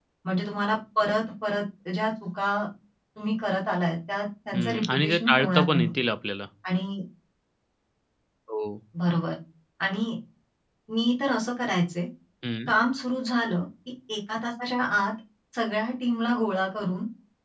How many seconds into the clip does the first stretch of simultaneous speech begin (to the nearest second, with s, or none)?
5 s